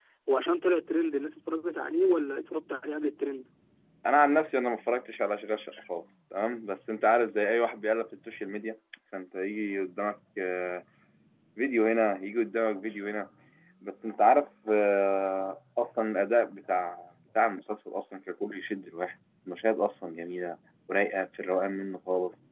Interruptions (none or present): none